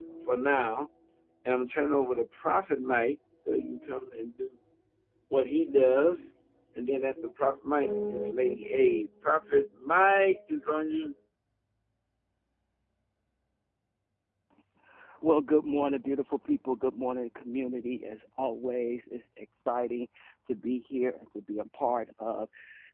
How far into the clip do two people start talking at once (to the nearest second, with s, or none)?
none